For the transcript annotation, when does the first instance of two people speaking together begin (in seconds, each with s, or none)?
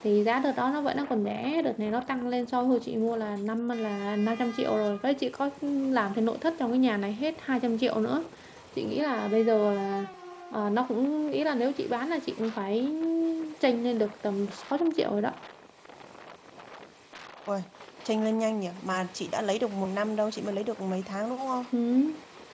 none